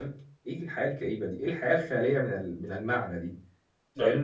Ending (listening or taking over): listening